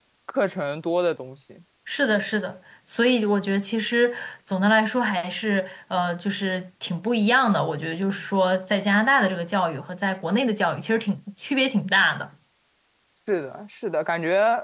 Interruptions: none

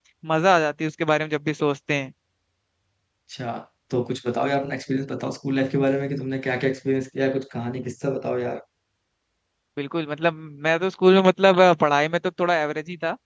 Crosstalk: none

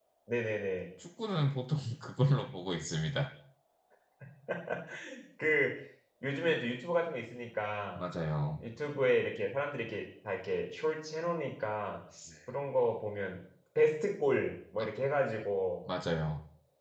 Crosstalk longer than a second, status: none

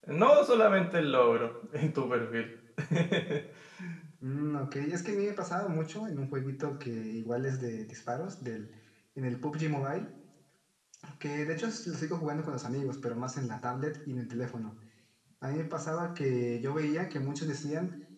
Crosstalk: none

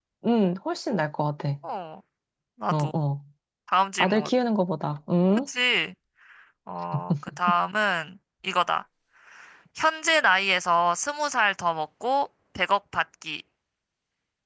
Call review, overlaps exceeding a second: none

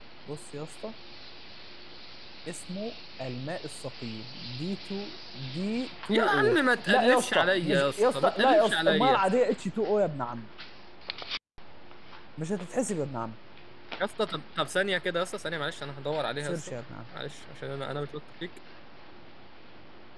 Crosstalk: present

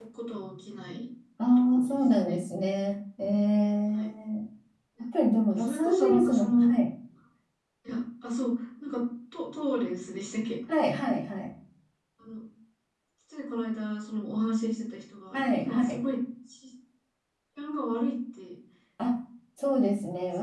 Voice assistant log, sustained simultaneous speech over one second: present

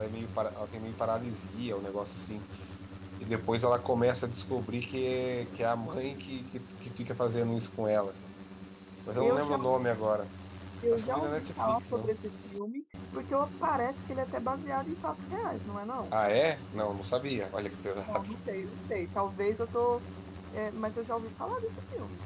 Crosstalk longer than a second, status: present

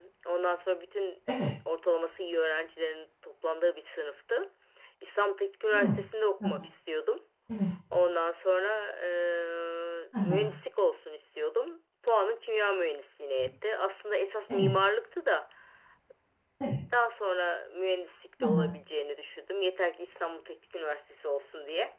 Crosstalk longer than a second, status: none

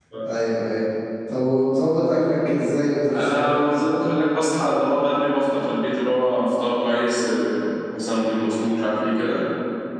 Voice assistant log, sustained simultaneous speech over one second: none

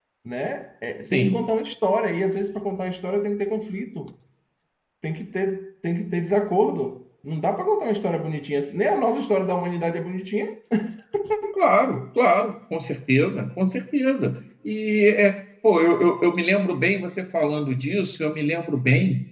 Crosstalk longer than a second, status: none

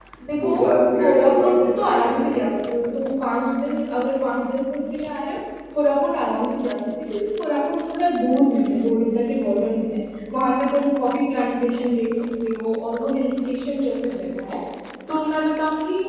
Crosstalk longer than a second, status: present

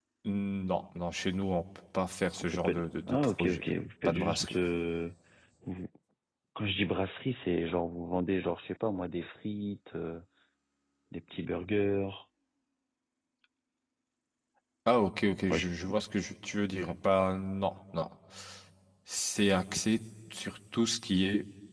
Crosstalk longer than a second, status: present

